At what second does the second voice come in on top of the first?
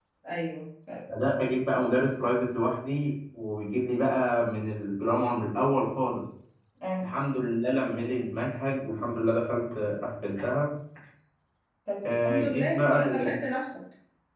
12.0 s

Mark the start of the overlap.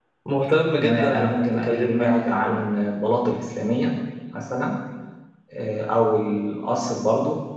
0.8 s

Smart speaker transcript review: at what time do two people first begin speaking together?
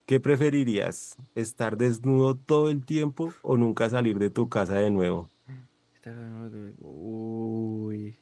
none

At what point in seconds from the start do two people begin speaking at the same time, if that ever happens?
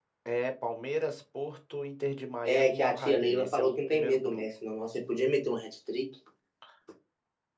2.4 s

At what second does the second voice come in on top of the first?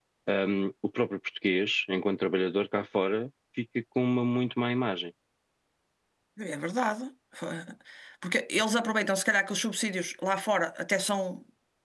none

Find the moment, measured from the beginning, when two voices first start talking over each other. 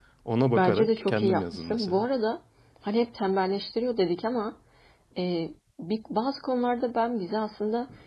0.6 s

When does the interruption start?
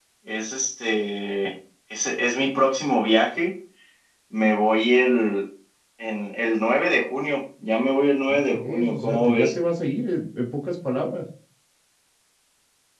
8.3 s

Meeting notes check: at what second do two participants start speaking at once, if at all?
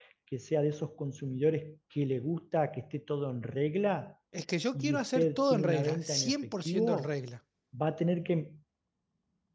4.7 s

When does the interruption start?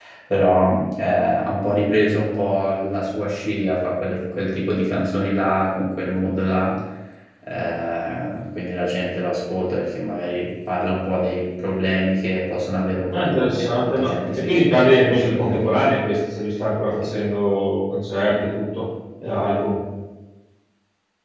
13.1 s

